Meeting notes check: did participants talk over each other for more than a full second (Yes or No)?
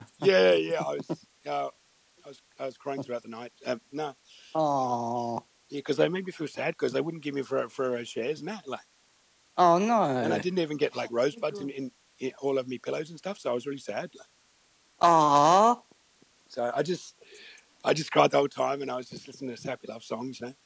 No